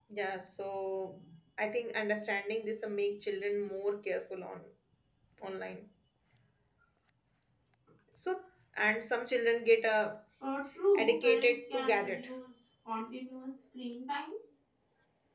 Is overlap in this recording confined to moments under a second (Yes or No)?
No